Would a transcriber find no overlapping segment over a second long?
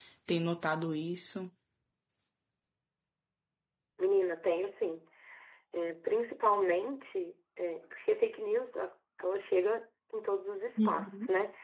Yes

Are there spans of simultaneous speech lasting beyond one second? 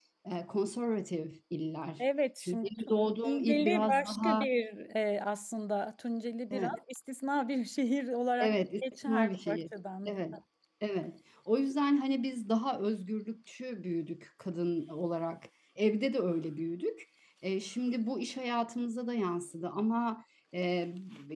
Yes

